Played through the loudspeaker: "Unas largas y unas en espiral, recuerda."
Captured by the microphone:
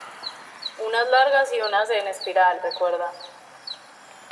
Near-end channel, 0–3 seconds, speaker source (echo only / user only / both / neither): echo only